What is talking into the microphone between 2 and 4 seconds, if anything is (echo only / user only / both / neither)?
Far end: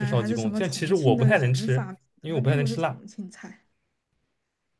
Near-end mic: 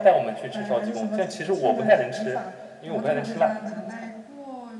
both